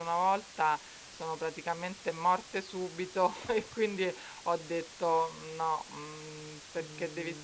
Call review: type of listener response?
listening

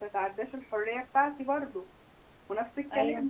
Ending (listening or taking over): listening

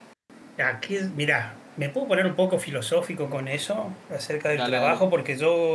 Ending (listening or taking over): listening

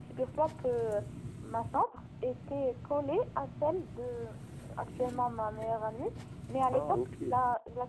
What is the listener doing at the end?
listening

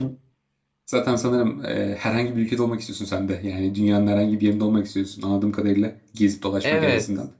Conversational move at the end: taking over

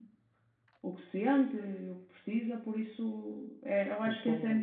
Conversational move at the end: listening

